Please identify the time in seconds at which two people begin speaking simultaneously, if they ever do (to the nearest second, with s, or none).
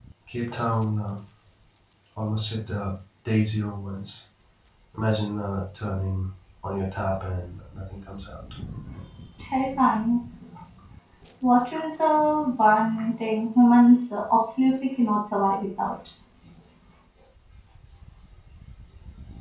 none